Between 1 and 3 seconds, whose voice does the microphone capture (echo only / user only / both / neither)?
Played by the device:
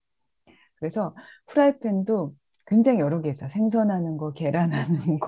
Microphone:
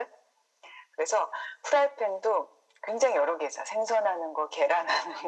echo only